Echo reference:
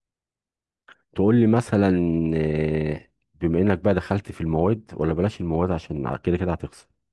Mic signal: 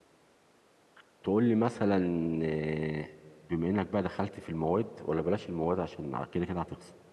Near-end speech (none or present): none